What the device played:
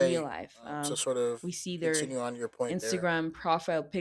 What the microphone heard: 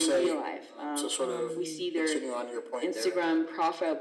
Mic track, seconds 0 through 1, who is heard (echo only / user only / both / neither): echo only